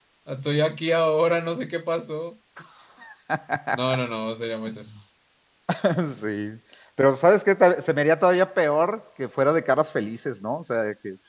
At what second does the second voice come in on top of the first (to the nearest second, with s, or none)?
none